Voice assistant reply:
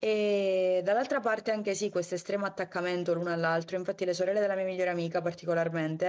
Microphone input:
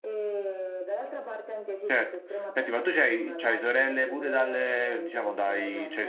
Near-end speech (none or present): present